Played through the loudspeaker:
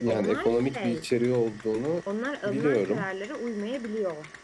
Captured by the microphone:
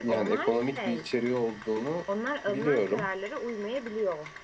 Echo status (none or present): present